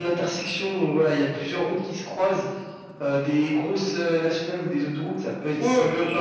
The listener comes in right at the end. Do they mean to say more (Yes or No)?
Yes